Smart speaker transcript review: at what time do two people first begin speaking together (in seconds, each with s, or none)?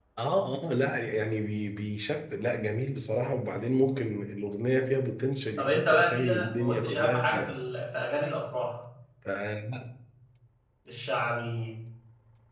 5.6 s